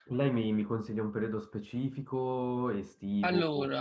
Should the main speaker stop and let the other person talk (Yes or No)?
No